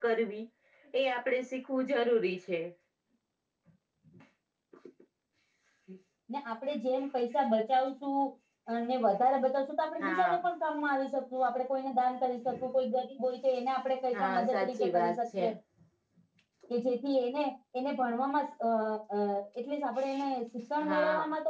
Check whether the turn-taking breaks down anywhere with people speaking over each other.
Yes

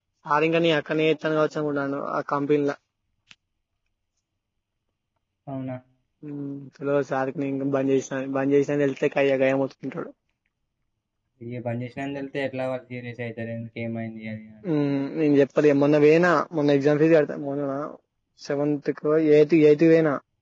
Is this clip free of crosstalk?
Yes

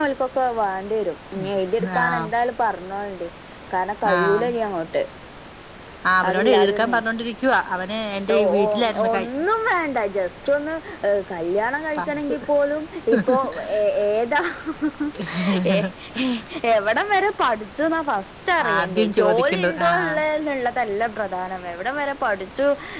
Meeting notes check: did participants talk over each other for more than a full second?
Yes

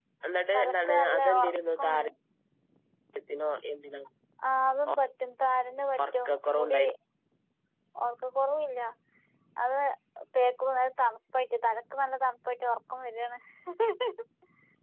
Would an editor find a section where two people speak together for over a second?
Yes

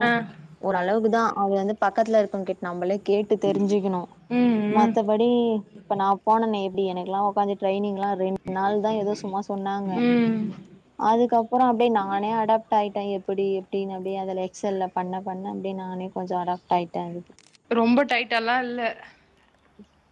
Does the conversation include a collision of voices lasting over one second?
No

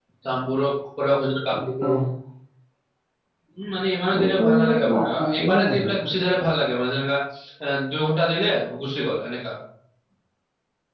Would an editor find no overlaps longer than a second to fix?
No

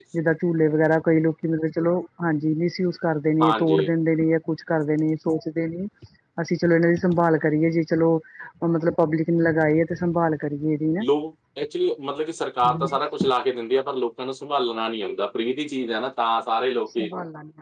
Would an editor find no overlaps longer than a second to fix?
Yes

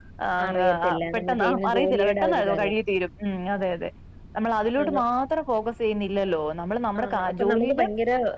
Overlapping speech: Yes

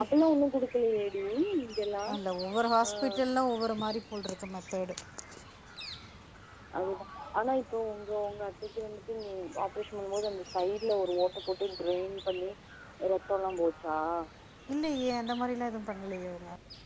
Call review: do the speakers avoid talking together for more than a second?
Yes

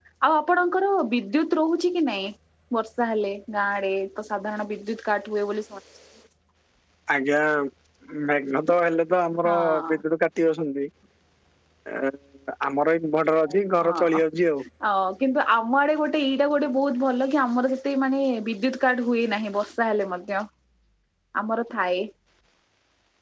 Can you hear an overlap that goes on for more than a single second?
No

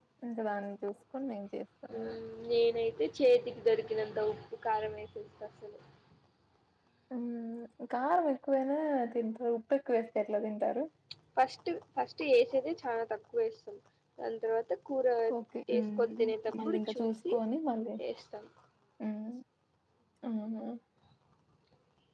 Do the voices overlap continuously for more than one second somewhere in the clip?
Yes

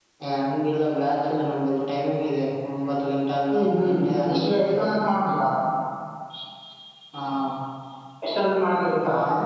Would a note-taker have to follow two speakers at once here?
Yes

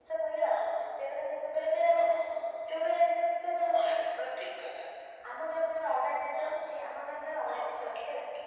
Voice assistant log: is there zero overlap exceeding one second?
Yes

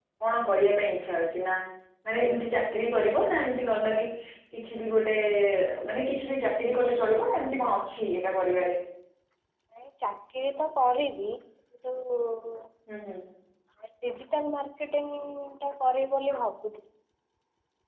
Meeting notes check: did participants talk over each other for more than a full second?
No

